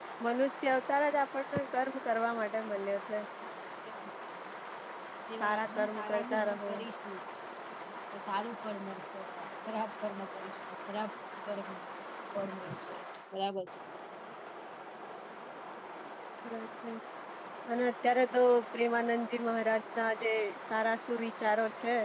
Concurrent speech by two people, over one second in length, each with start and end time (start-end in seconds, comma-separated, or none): 5.4-6.7